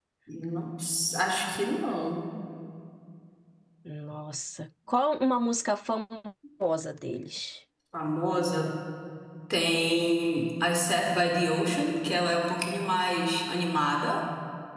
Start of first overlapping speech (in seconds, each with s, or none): none